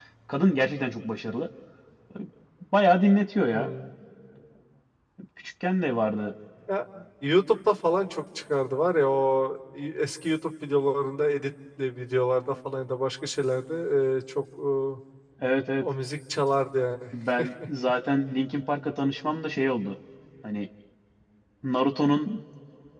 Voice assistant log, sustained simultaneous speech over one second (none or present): none